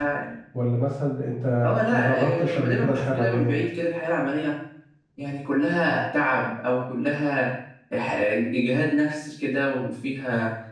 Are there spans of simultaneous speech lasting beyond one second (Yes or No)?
Yes